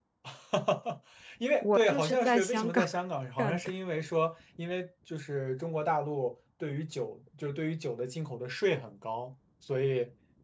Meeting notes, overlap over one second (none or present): present